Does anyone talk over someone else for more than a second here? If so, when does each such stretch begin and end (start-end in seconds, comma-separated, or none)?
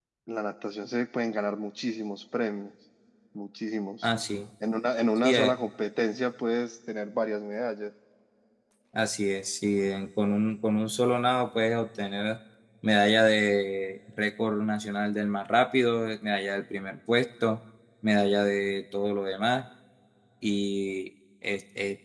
none